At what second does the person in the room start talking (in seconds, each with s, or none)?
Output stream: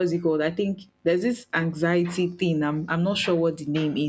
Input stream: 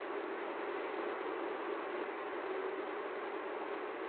none